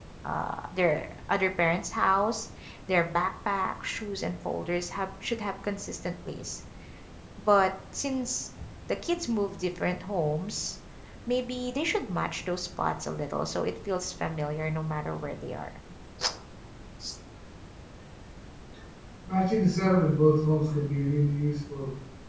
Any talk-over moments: No

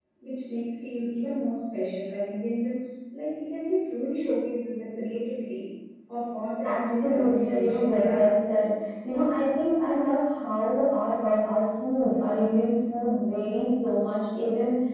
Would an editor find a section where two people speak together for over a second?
Yes, from 6.6 s

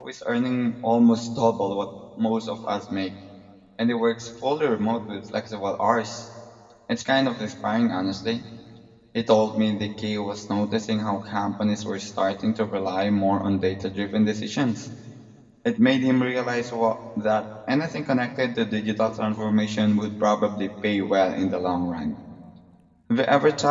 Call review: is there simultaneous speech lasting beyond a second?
No

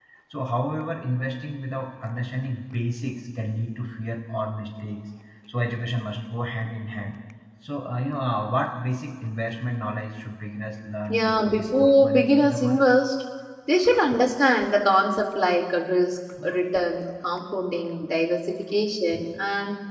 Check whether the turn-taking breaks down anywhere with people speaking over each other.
Yes, from 11.1 s

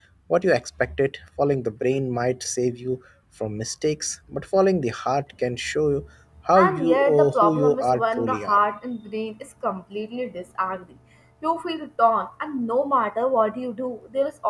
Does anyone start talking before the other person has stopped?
Yes, from 6.6 s

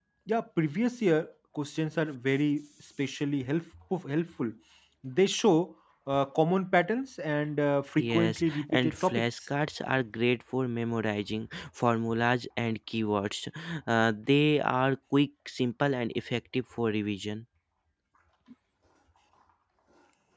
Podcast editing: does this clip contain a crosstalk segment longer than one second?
Yes, from 8.0 s

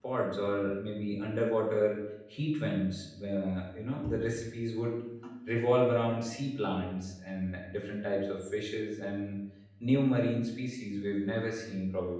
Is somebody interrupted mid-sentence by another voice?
No

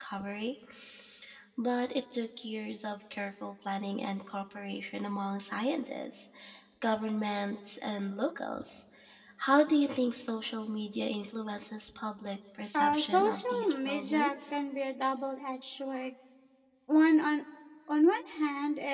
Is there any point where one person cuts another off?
Yes, from 12.7 s

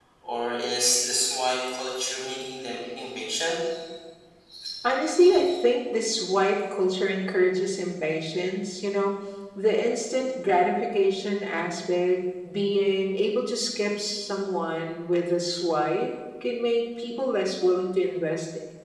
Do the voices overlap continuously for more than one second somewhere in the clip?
No

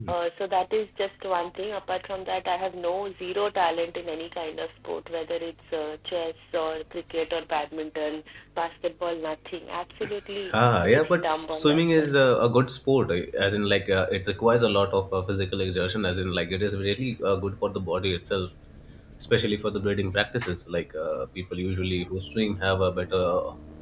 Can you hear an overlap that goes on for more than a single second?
Yes, from 10.5 s

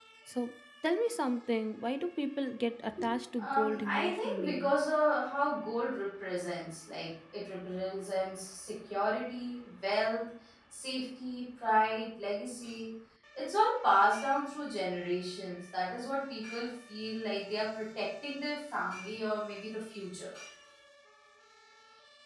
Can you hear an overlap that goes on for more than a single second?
Yes, from 3.4 s

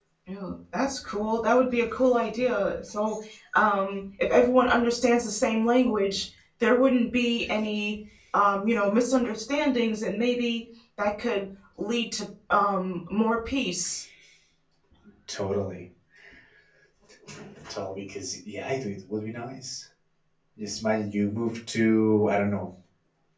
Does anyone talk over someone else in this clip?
No

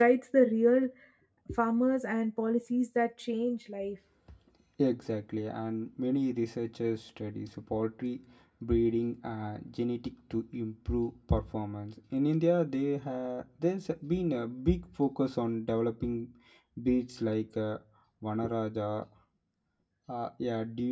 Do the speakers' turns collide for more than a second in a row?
No

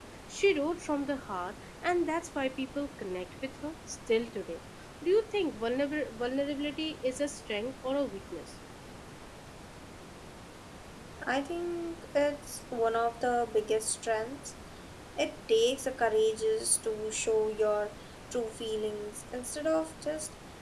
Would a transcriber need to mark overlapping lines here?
No

